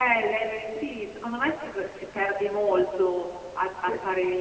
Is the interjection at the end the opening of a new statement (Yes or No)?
No